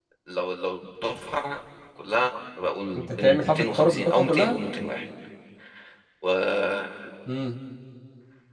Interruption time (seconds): 3.0 s

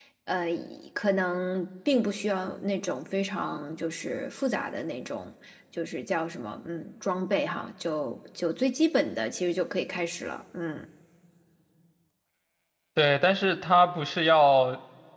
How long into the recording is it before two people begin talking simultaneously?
none

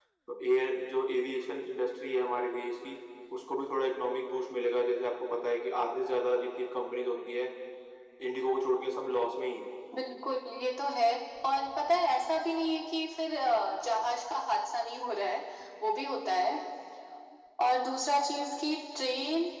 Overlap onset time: none

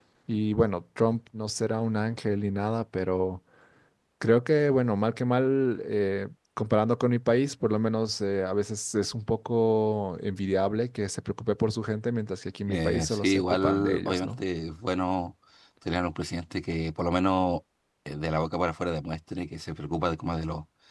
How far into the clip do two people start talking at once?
12.7 s

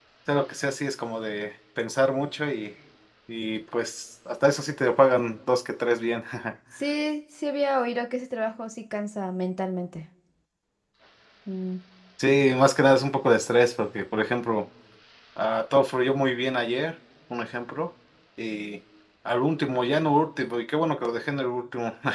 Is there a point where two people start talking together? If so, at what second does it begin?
none

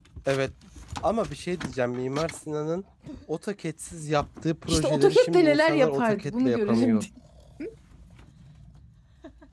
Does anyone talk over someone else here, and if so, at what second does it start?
4.7 s

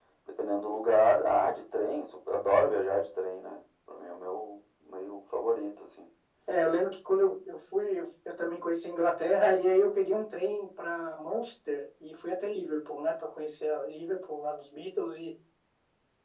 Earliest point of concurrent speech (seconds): none

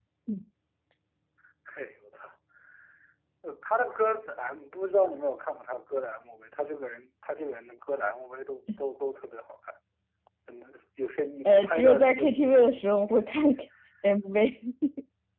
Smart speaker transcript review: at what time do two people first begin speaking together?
11.4 s

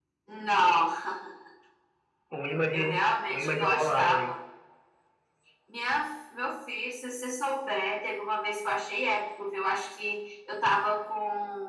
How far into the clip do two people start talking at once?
2.7 s

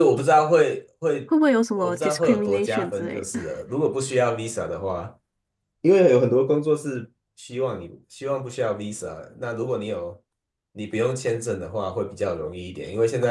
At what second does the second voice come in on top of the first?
1.8 s

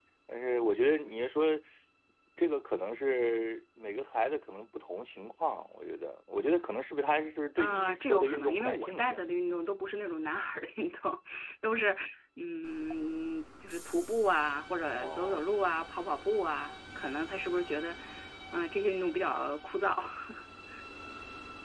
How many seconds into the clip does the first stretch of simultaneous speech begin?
7.6 s

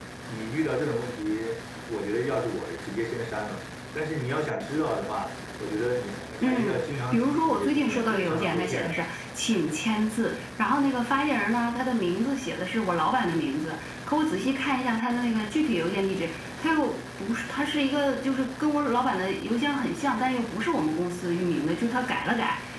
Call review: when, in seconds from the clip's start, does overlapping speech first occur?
6.4 s

